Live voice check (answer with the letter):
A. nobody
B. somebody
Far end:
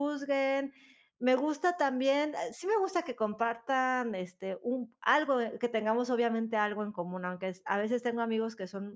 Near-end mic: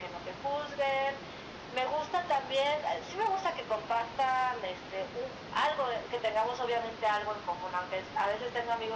A